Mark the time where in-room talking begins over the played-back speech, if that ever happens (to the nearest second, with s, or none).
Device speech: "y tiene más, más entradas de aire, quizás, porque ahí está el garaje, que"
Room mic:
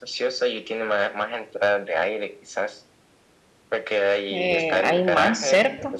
4 s